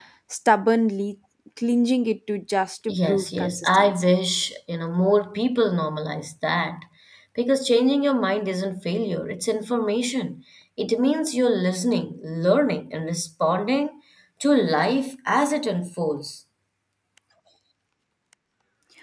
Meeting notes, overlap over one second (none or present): present